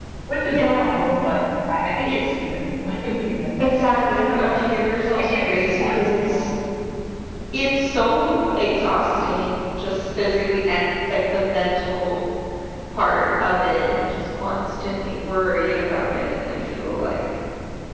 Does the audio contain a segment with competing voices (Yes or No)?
Yes